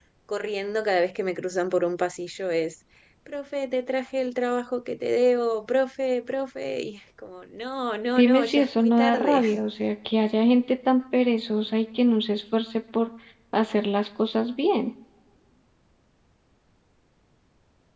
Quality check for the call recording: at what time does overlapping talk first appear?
8.2 s

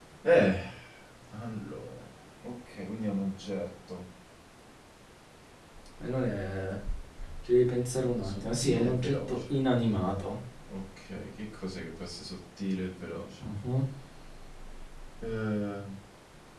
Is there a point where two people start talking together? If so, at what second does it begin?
8.3 s

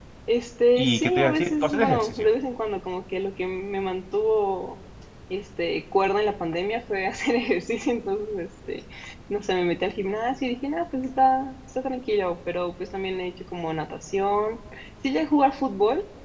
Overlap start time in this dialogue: 0.8 s

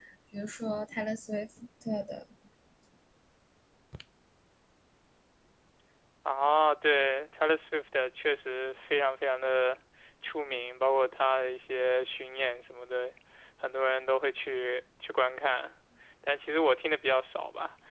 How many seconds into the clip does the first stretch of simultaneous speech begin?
none

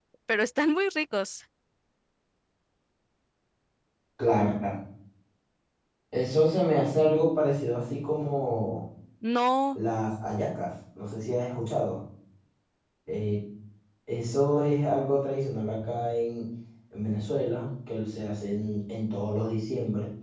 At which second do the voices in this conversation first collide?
none

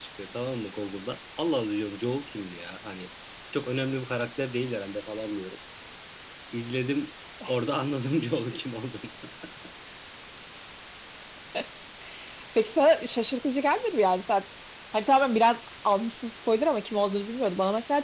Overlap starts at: none

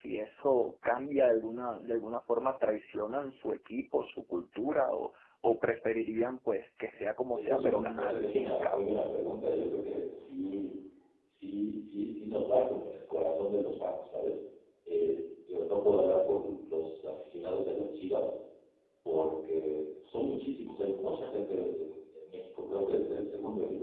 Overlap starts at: 7.3 s

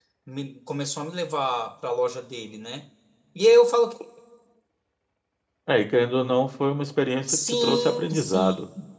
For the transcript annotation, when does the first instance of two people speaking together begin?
7.3 s

